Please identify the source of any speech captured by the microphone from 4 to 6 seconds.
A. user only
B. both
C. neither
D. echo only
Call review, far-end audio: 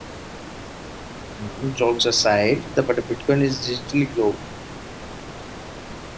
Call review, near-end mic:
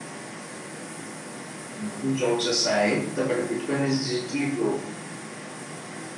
D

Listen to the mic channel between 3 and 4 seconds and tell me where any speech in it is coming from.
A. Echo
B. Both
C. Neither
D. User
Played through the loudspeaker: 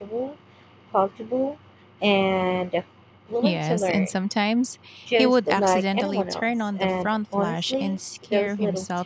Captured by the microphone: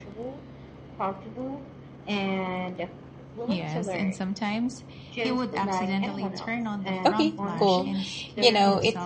A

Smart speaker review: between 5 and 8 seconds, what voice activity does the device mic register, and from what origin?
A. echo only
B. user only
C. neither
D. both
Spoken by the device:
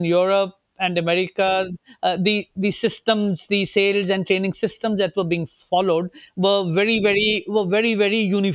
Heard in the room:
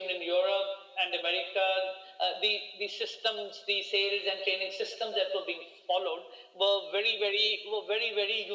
A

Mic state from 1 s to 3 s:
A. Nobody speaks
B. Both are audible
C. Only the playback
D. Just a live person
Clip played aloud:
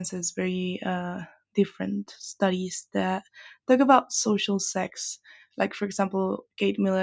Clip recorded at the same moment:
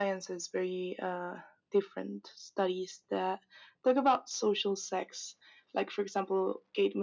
C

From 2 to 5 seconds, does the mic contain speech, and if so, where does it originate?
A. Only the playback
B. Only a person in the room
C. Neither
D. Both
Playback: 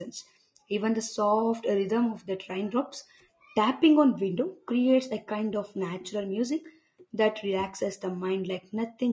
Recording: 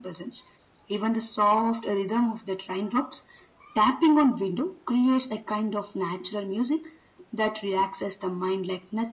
A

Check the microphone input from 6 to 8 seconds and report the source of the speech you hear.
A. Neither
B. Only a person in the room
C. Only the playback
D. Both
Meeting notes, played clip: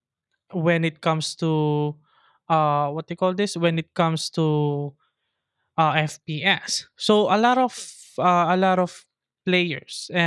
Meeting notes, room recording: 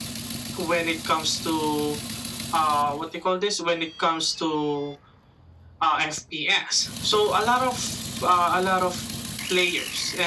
C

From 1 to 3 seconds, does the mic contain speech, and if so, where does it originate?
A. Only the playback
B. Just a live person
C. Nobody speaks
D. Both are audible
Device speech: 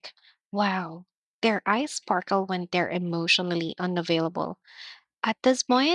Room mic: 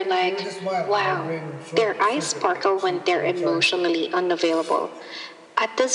D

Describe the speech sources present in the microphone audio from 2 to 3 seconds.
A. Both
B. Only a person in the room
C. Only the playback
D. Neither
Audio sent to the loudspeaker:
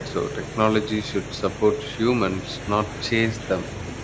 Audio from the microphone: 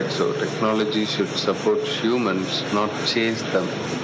C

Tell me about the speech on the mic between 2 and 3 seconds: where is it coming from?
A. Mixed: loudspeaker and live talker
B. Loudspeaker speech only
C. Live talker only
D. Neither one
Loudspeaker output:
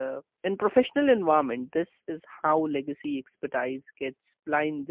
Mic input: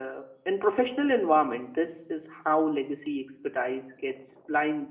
B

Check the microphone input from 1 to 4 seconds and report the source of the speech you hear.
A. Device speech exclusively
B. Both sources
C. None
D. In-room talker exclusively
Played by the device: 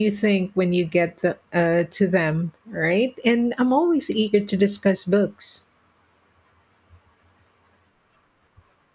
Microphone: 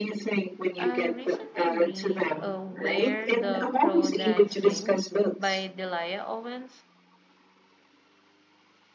B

